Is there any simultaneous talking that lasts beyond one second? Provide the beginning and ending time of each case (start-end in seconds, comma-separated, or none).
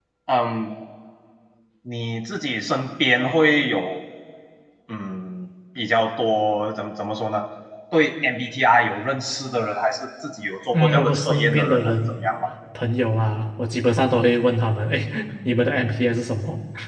10.7-12.0